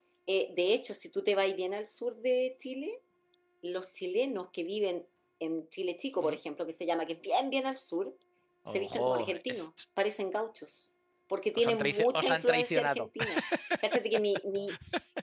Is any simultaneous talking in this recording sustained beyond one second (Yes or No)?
Yes